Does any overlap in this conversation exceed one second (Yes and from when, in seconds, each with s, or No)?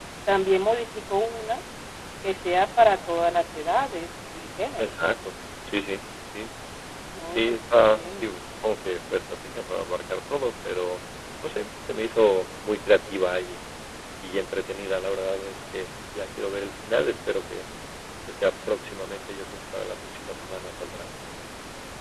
No